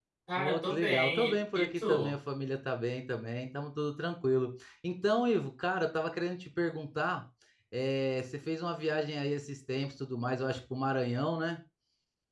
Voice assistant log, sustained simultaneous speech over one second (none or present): present